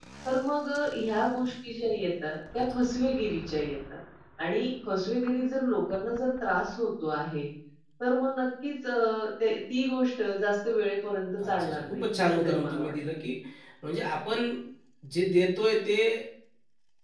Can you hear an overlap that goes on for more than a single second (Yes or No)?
Yes